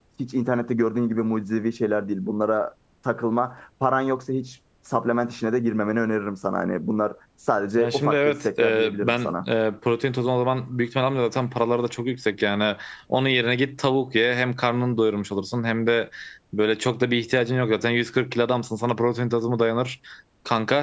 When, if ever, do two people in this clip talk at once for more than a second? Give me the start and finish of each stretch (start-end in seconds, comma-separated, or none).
7.8-9.3